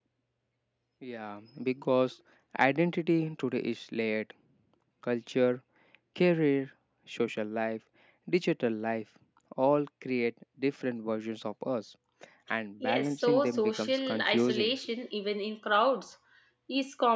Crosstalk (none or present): present